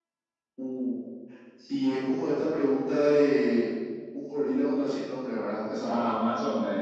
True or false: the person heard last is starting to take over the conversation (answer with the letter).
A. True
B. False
A